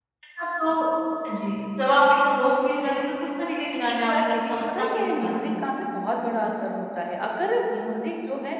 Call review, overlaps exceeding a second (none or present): present